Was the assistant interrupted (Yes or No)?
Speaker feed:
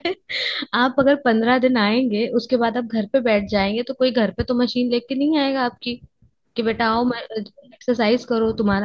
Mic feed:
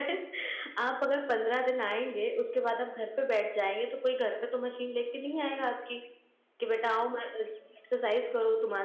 No